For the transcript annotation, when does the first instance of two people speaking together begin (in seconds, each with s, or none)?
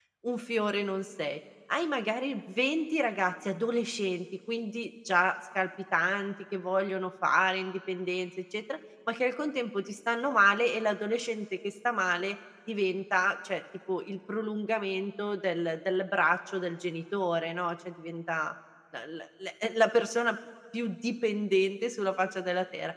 none